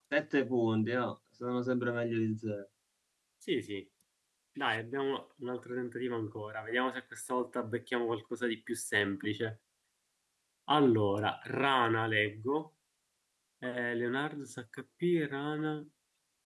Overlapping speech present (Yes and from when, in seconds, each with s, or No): No